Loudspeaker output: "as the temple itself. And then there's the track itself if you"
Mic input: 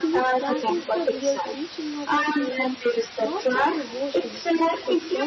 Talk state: both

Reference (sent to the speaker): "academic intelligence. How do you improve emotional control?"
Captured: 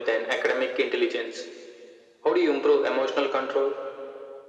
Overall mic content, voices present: echo only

